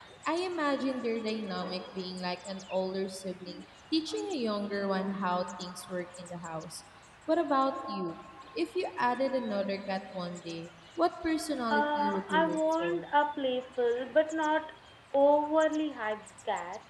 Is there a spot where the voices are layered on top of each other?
Yes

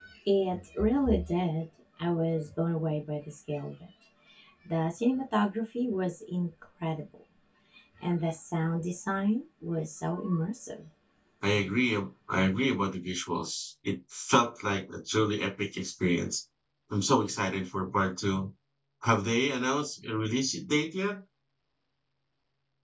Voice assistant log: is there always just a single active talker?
Yes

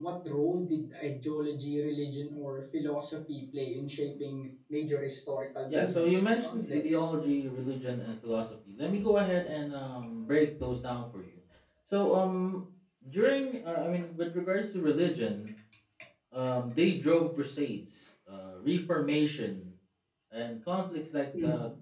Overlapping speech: Yes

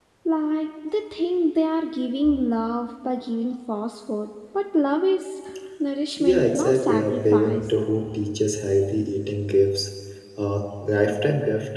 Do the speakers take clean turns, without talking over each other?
No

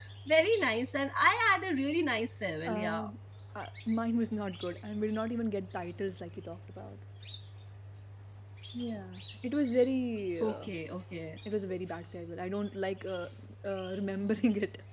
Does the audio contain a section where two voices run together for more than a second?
No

